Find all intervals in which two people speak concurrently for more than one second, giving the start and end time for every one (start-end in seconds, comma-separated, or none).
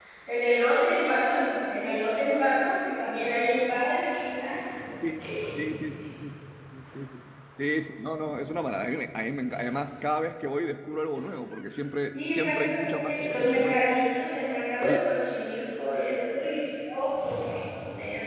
12.1-13.8